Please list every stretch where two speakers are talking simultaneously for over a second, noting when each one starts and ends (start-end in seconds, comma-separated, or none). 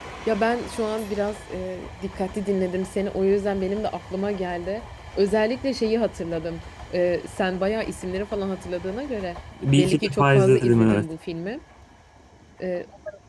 9.8-11.0